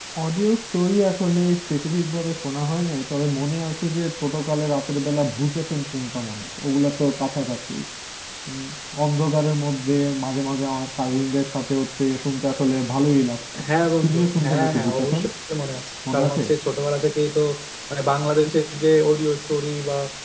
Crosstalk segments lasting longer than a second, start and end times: 14.0-15.2

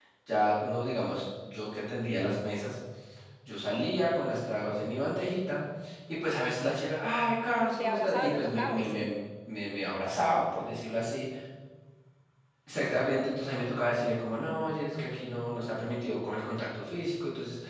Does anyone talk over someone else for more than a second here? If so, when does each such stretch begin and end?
7.8-9.1

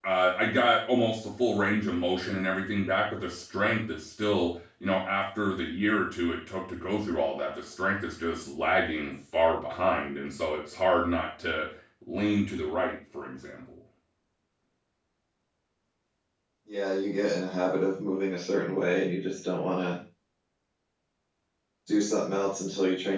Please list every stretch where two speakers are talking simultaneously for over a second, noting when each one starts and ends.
none

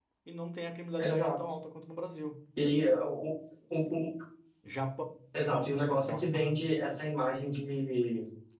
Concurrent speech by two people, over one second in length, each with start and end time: 5.4-6.7

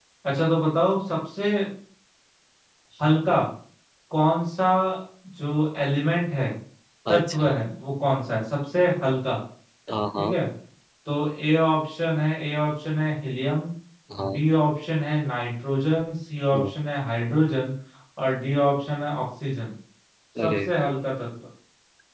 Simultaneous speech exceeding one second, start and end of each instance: none

